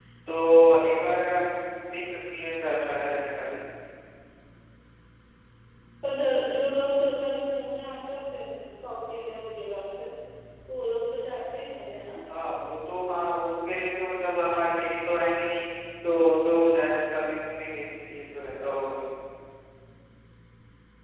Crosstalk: none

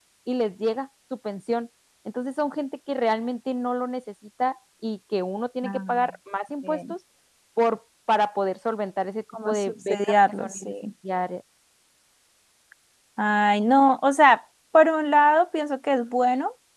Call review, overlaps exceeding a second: present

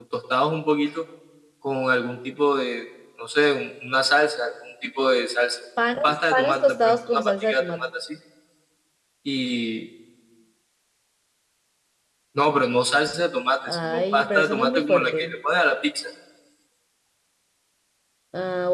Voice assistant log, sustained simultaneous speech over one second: present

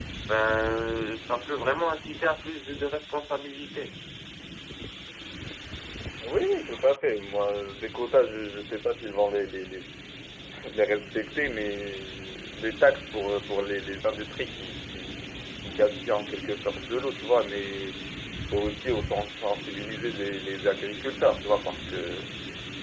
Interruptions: none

